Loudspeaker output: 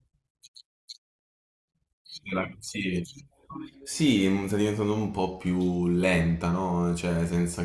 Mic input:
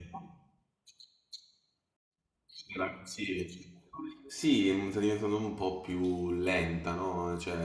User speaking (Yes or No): No